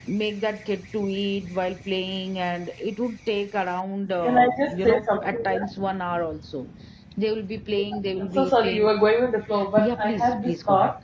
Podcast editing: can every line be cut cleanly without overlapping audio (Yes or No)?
No